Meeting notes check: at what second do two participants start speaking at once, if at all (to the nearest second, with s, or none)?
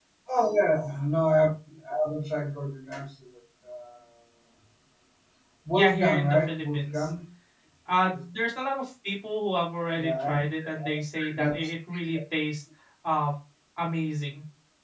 6 s